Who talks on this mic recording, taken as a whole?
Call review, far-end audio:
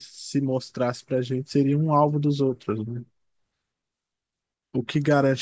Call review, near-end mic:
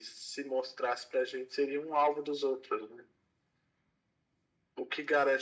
echo only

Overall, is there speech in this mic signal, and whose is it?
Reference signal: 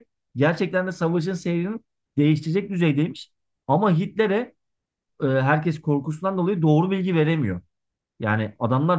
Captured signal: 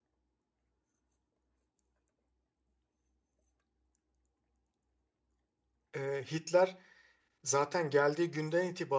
user only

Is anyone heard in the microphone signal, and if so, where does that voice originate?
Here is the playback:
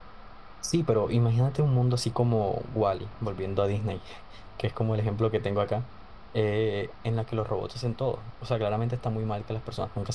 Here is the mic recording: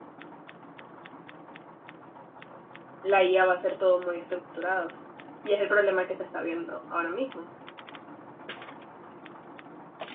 user only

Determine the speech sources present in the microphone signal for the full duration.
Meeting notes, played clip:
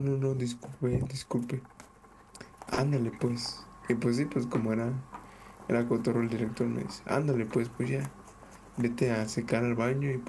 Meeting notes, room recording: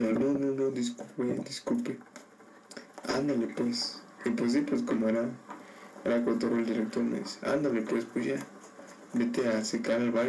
echo only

